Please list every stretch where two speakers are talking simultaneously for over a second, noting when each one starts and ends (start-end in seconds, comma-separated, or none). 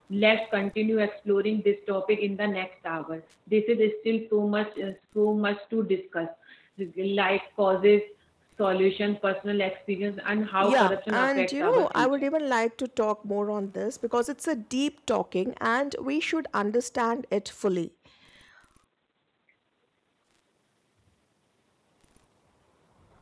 10.6-12.3